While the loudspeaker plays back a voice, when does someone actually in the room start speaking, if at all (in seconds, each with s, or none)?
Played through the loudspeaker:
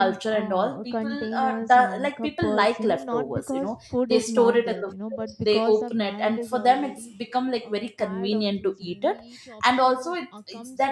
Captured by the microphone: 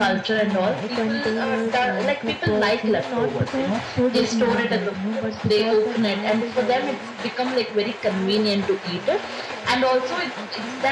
none